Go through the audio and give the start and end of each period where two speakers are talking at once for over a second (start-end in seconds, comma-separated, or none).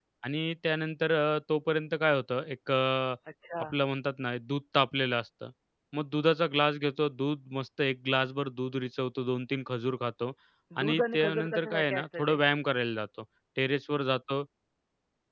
10.8-12.4